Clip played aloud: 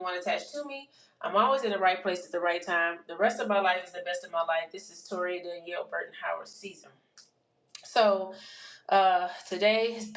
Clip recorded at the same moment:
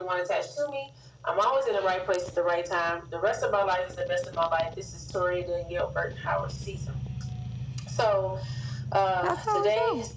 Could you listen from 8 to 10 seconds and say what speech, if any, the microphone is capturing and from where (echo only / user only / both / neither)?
both